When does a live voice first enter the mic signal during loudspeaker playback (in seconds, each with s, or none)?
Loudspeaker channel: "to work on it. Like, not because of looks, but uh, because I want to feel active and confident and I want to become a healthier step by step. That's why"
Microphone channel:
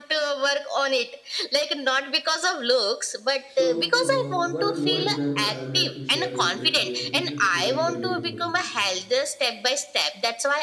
3.5 s